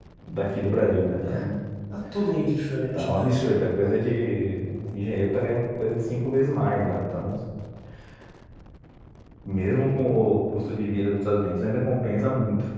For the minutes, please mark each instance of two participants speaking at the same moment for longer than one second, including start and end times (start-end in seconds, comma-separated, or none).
none